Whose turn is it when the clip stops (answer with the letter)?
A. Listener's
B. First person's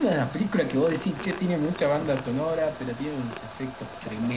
A